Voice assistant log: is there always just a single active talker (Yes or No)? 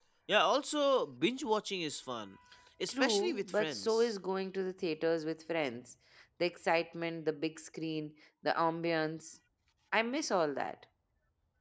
No